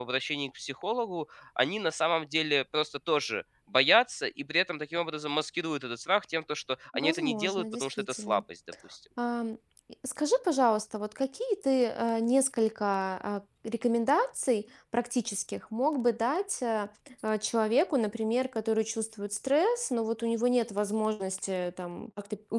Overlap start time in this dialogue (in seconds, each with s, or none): 6.9 s